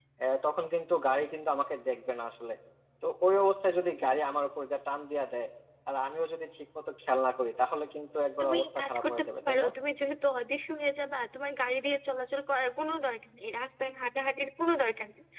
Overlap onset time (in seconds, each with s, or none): 8.4 s